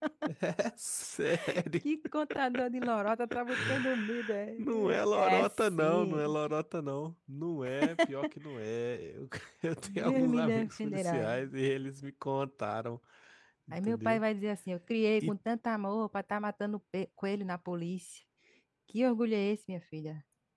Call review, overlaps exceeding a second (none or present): present